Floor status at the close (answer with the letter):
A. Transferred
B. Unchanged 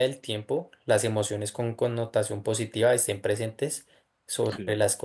B